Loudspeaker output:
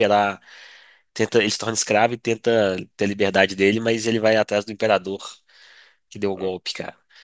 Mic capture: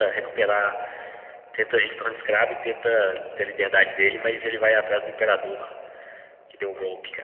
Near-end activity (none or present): none